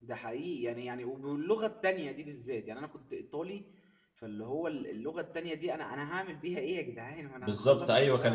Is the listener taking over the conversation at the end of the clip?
Yes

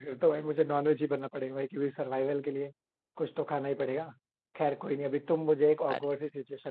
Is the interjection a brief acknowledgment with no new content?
Yes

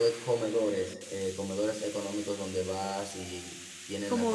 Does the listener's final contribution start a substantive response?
Yes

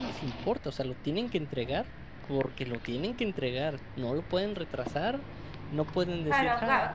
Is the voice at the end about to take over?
Yes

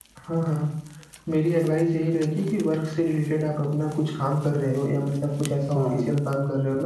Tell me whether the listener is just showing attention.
Yes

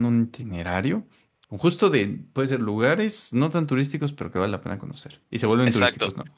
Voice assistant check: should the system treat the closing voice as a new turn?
Yes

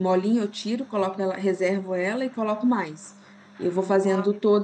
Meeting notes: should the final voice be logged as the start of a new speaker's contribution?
No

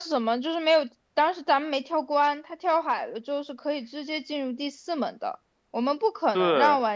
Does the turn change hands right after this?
No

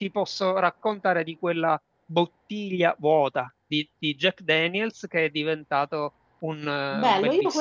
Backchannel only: No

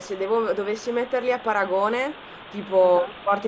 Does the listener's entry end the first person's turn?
No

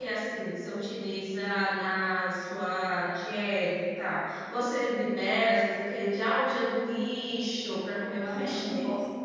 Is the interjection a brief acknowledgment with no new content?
No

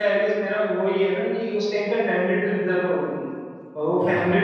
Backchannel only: Yes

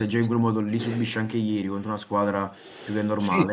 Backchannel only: No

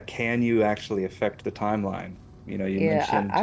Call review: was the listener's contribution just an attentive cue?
No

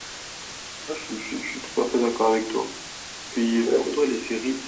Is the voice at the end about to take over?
No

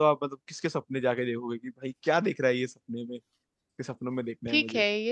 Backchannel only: No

